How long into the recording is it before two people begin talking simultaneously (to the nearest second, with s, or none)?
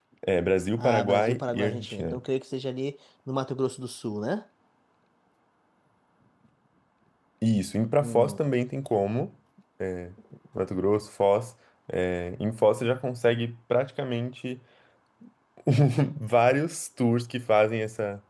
1 s